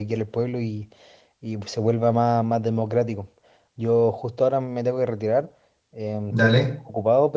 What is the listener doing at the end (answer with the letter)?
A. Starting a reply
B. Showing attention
B